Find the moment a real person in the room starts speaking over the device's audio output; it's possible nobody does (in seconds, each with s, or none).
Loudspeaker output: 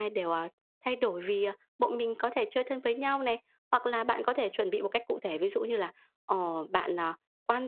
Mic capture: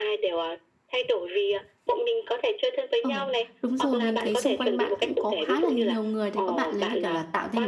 3.0 s